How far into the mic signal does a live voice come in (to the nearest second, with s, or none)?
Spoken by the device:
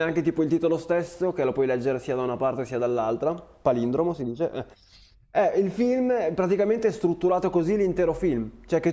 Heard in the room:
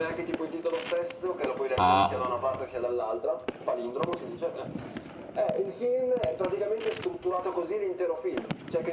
2 s